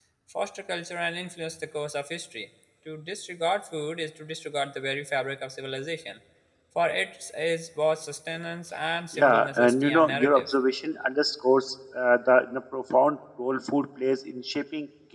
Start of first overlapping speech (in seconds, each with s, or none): 9.1 s